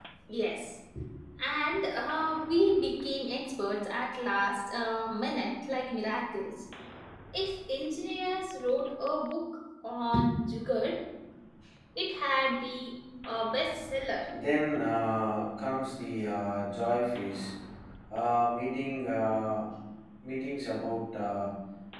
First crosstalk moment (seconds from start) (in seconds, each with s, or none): none